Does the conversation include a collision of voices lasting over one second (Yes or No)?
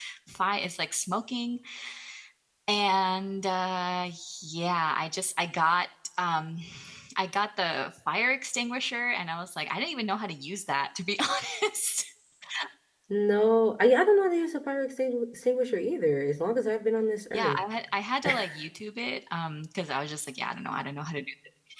No